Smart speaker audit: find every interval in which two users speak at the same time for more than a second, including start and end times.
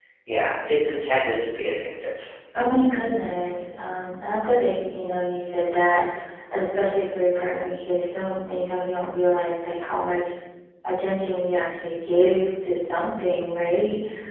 none

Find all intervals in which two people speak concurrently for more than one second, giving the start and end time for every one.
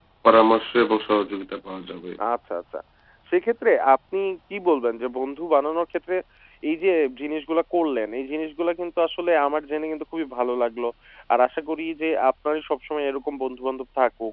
none

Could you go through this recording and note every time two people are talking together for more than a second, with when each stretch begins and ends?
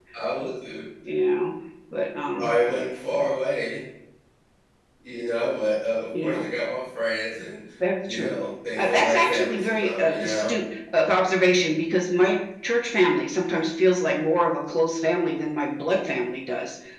8.8-10.5

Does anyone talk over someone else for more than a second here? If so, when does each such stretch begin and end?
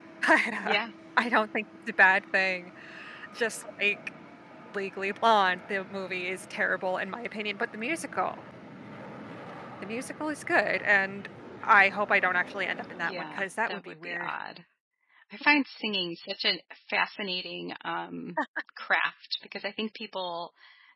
13.0-14.3

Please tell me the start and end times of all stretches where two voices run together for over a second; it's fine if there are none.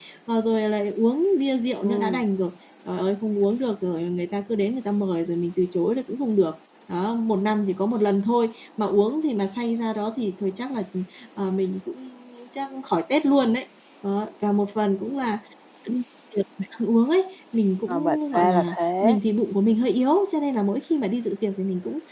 17.9-19.2

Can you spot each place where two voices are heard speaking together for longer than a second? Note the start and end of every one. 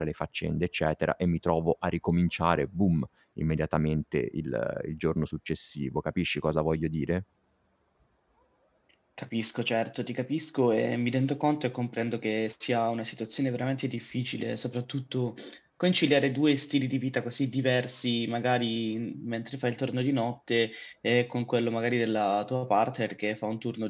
none

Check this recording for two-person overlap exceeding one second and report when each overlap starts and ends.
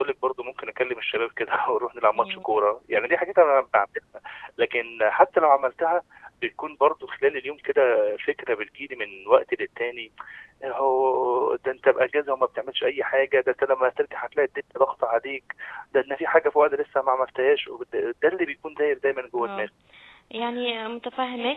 none

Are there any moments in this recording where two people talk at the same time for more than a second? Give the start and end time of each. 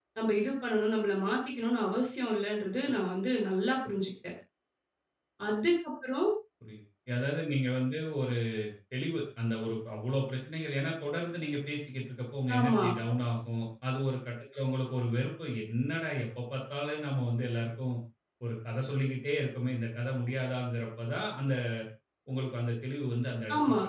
none

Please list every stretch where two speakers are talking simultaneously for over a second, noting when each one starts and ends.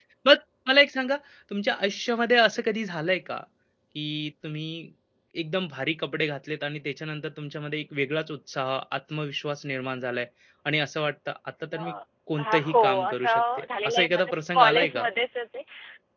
12.4-15.0

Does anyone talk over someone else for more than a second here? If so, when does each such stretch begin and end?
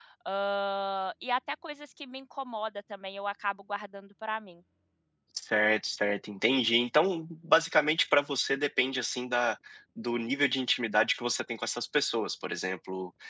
none

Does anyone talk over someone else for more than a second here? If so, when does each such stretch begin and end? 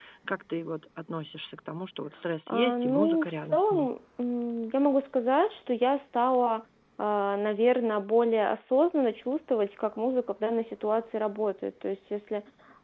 2.5-3.9

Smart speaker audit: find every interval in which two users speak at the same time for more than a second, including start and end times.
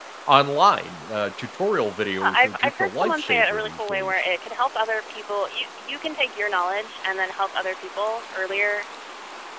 2.2-4.2

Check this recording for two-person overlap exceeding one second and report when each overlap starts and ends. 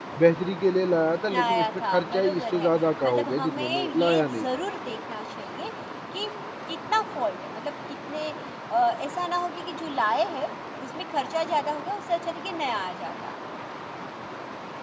1.3-4.5

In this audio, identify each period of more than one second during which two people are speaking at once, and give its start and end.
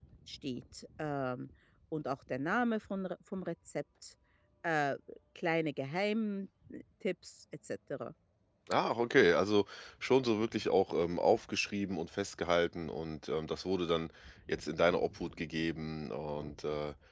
none

